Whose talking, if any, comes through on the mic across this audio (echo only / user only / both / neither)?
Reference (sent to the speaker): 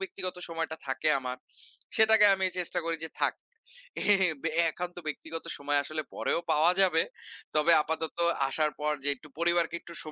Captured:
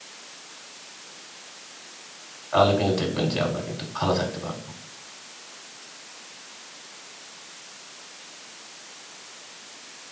user only